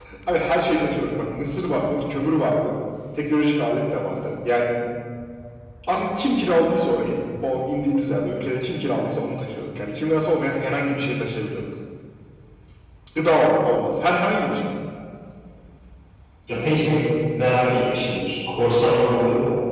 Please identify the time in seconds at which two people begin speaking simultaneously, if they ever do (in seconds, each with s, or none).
none